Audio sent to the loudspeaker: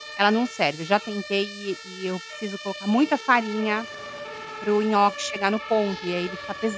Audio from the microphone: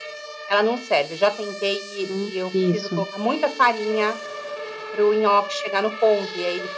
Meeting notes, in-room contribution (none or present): present